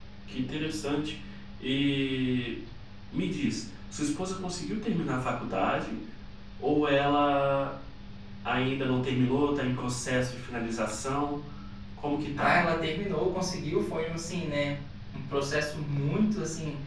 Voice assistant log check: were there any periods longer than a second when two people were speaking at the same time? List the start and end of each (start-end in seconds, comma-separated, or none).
none